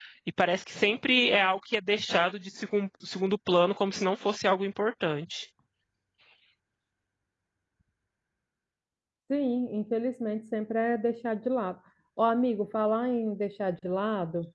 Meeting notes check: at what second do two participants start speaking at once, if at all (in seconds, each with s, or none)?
none